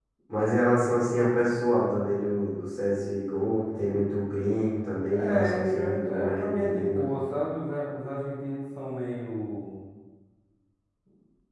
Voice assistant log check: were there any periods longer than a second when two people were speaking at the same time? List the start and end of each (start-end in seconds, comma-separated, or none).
5.2-7.1